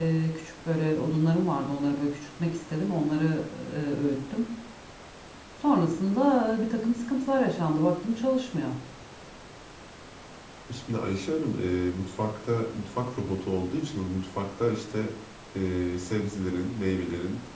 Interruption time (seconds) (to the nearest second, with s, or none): none